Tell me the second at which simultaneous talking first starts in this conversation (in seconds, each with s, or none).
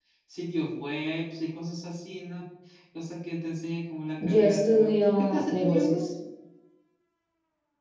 4.2 s